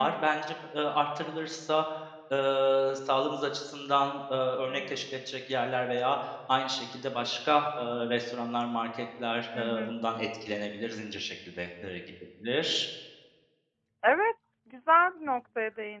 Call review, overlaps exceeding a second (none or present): none